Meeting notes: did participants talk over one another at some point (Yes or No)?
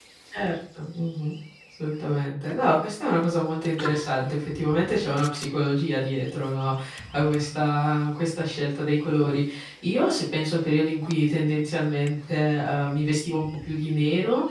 No